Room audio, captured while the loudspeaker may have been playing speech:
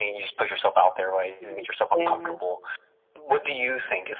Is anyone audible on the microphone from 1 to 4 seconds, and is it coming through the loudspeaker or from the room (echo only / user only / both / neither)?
both